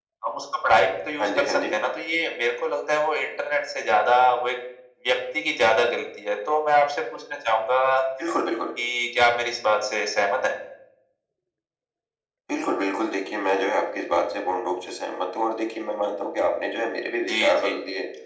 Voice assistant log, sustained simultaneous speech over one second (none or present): none